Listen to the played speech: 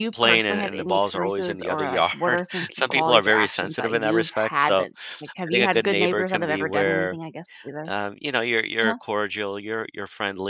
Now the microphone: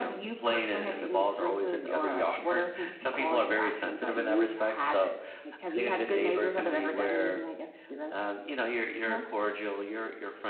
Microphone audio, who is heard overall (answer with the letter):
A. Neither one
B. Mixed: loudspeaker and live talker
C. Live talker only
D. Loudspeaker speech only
D